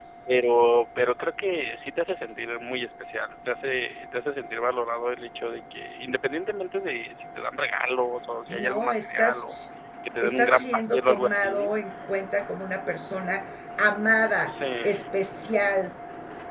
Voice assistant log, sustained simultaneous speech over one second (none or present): present